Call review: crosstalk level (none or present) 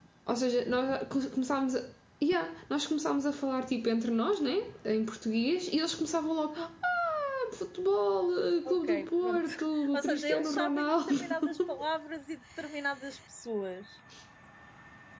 present